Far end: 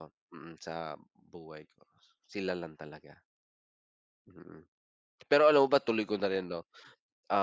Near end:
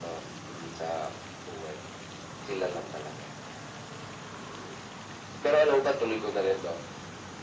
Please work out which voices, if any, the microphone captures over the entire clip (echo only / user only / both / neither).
echo only